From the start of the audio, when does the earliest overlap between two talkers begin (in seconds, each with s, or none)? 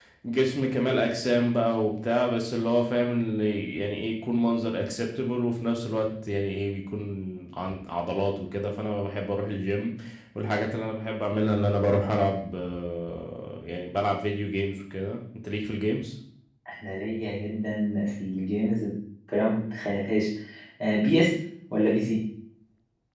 none